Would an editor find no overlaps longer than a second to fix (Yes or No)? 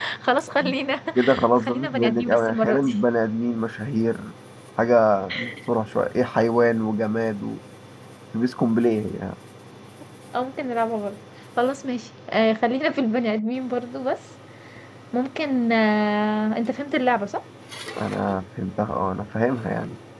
No